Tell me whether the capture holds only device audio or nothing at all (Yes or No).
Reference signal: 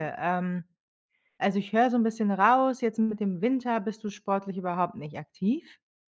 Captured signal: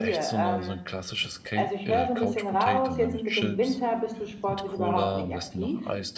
No